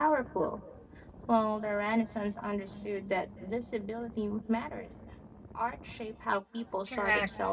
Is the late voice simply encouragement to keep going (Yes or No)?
No